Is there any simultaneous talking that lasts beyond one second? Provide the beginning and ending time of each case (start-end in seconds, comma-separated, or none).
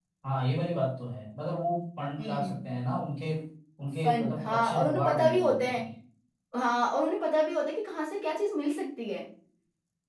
4.0-5.8